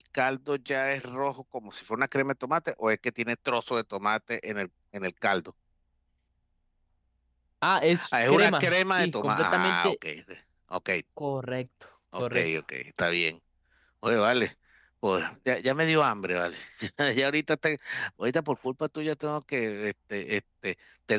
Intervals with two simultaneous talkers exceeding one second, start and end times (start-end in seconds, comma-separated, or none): 8.1-9.9